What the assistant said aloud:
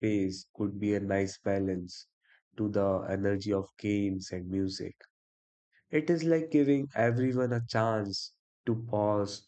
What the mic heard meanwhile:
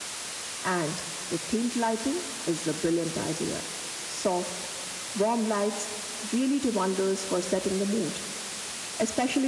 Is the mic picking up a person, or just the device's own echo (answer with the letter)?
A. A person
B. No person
A